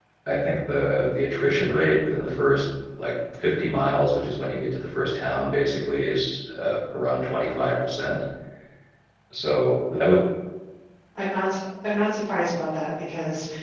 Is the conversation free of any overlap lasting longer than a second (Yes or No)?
Yes